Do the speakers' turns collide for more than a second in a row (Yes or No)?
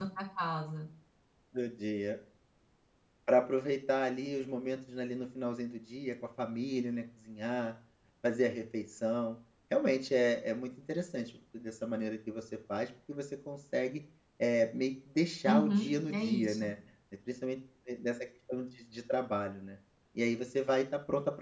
Yes